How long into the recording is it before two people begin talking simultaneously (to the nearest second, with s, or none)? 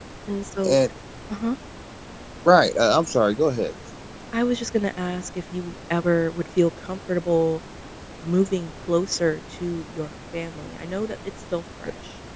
none